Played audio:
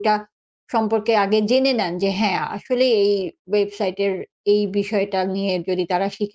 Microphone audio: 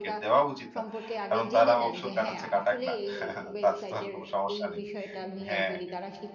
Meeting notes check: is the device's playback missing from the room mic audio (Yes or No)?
No